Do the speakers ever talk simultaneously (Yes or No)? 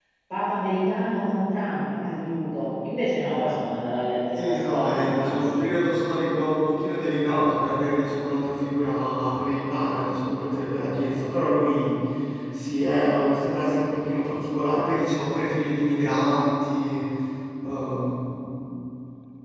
Yes